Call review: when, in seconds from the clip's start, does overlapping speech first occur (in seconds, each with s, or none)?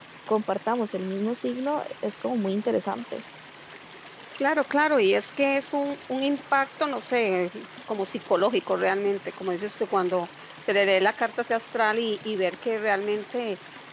none